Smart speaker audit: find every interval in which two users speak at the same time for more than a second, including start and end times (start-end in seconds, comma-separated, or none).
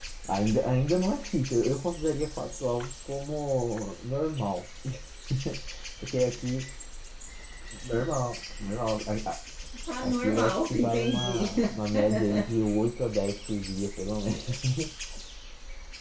10.0-11.5